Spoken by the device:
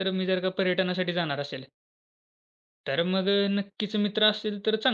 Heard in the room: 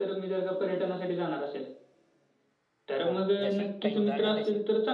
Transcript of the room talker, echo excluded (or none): हां, जशी काही उदाहरणं देशील?